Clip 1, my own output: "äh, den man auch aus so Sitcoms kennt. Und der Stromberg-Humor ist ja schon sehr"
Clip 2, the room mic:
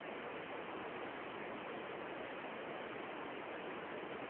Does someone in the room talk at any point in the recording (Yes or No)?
No